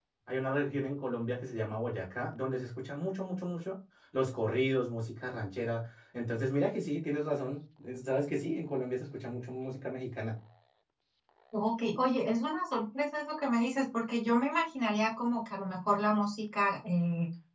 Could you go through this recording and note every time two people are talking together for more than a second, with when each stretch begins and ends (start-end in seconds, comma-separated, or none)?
none